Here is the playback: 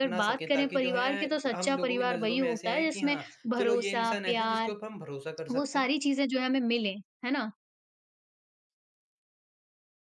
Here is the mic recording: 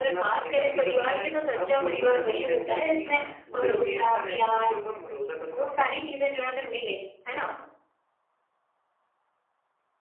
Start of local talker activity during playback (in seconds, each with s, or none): none